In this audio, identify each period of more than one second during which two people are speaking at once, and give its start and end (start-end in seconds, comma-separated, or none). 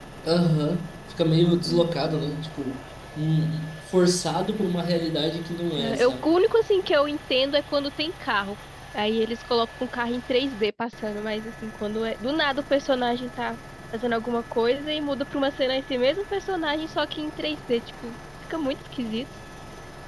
none